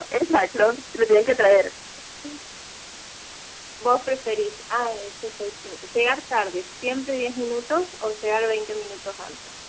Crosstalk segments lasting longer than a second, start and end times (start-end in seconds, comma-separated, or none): none